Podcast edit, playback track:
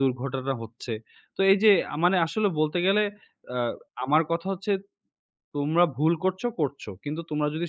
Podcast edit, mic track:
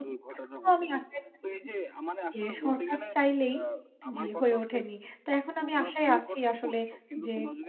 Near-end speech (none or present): present